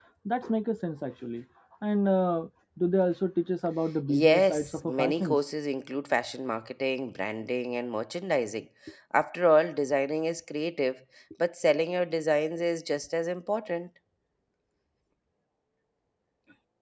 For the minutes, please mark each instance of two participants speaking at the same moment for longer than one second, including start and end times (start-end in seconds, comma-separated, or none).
4.1-5.4